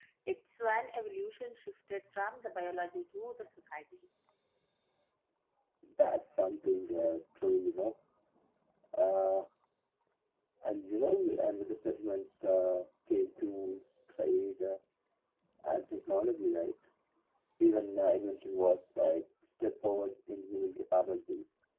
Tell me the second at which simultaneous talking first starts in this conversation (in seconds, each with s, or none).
none